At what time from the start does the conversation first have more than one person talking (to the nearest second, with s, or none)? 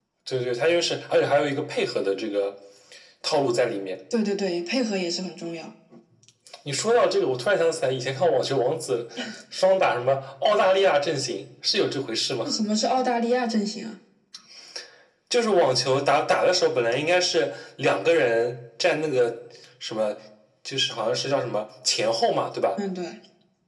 none